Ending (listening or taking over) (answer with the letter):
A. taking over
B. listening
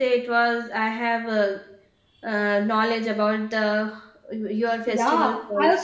A